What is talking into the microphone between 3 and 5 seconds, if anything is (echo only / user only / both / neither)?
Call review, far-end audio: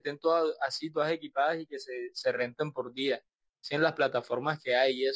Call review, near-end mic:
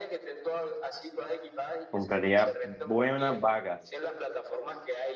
both